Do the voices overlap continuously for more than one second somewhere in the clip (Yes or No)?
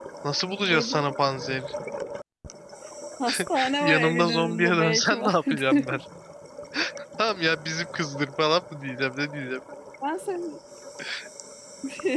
Yes